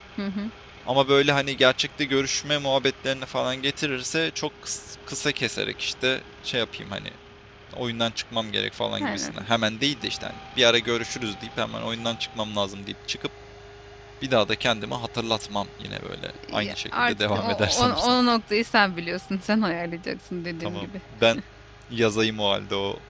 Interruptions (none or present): present